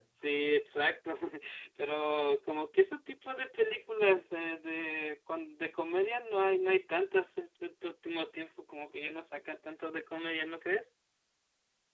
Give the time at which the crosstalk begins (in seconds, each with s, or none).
none